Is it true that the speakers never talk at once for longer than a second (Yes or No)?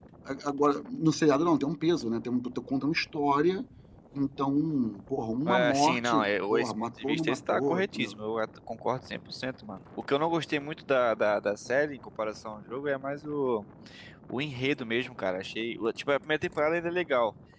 No